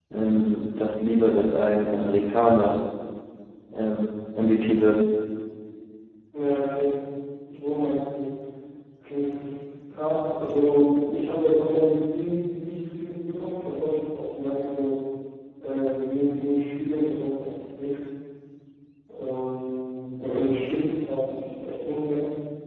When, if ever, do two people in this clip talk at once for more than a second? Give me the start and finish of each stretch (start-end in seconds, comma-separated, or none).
none